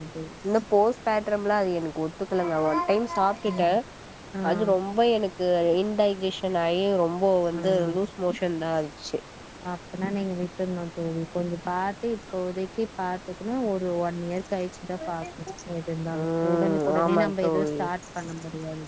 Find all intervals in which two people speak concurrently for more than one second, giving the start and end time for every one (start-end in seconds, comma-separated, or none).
16.2-17.7